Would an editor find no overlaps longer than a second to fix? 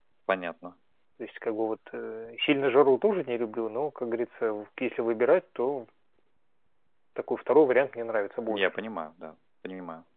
Yes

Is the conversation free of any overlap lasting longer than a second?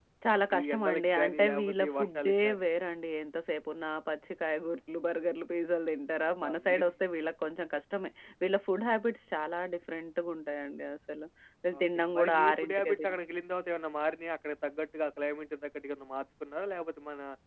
No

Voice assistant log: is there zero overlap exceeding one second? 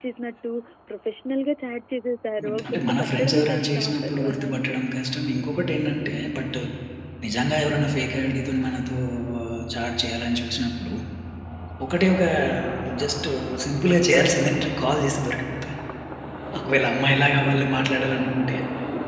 No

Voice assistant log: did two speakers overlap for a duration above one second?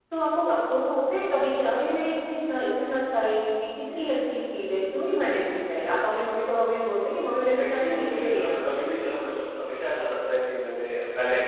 Yes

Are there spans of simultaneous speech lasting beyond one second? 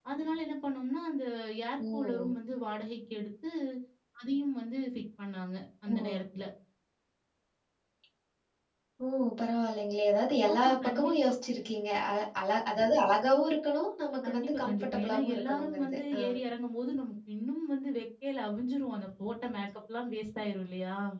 Yes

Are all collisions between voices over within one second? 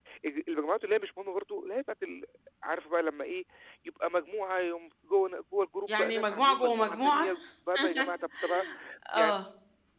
No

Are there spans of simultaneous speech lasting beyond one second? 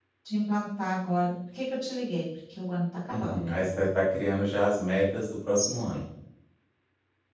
No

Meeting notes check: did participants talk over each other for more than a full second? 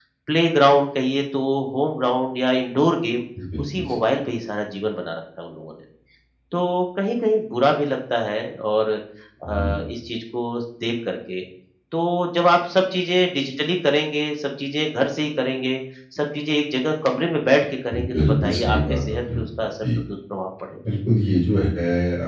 Yes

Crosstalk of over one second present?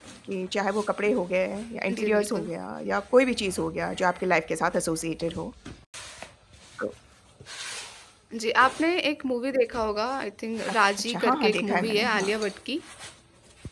Yes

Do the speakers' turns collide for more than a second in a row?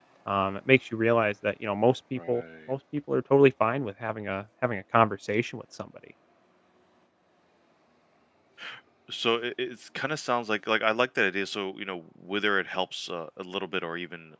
No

